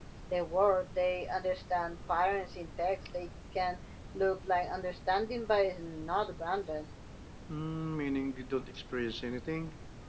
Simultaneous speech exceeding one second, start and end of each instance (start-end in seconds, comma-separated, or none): none